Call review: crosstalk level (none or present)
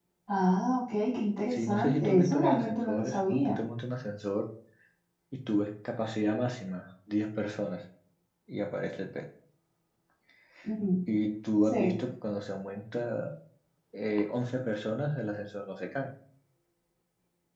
present